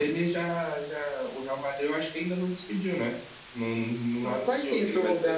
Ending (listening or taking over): taking over